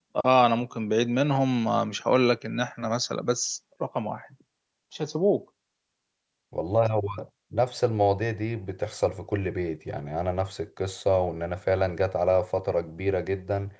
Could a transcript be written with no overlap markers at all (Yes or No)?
Yes